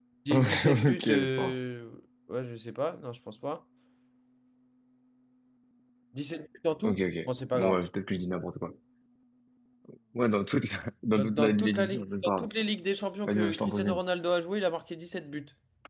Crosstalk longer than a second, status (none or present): present